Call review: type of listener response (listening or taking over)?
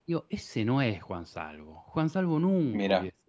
listening